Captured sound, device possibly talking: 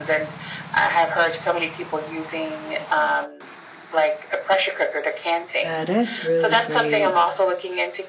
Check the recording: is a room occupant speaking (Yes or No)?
Yes